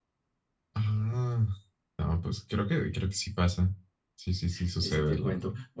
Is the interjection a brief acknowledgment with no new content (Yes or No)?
No